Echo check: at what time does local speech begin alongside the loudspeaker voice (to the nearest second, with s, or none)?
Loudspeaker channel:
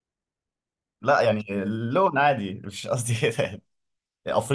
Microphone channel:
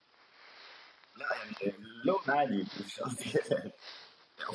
none